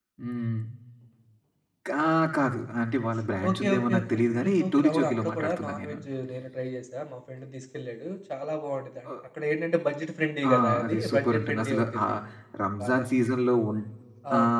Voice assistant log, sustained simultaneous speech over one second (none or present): present